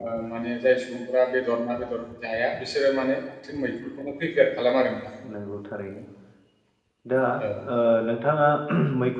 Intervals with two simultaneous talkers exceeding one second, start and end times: none

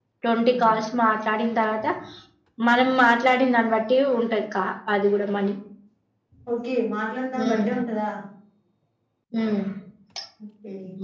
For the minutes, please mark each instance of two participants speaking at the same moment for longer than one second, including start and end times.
none

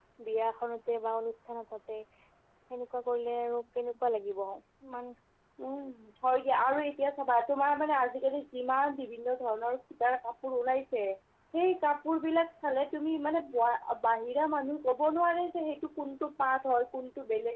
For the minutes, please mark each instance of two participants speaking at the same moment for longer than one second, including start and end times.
none

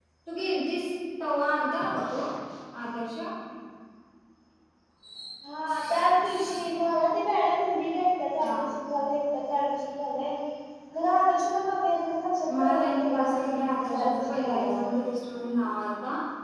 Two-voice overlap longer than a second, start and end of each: 12.6-15.0

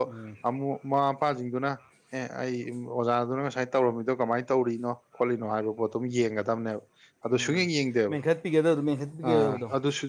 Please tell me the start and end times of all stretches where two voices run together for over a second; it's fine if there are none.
none

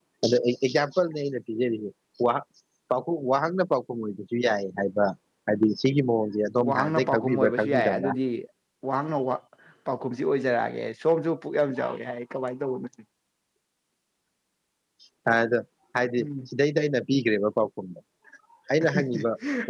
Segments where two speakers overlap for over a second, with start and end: 6.7-8.1

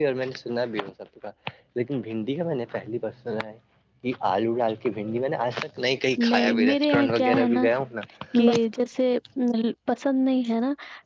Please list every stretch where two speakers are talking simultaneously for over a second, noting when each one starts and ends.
6.3-7.7

